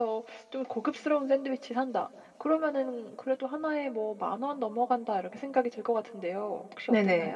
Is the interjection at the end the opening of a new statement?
Yes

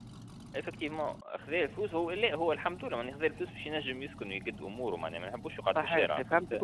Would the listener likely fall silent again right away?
No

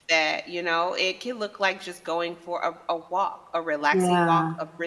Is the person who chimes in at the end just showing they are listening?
Yes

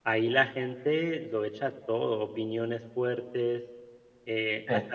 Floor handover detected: No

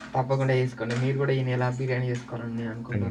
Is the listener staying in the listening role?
No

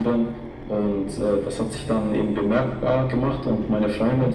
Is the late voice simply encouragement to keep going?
Yes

